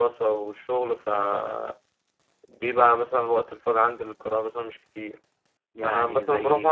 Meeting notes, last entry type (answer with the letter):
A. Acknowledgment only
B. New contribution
A